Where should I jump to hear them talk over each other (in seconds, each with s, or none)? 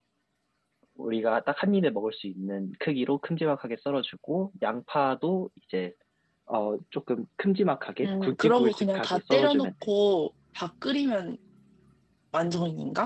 8.0 s